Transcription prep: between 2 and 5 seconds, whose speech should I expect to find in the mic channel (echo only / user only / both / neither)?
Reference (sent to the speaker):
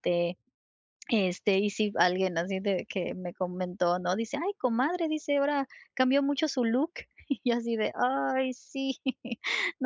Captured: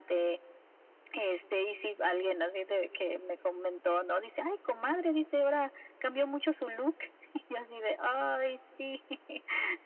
echo only